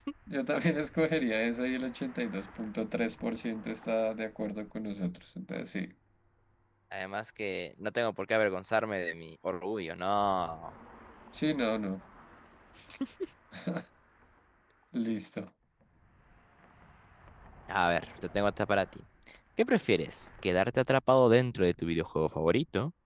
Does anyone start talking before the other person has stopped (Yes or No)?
No